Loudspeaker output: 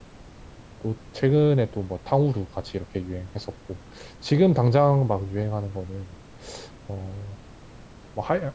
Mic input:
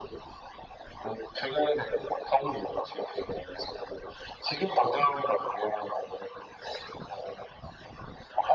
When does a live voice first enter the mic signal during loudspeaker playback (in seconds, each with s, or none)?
none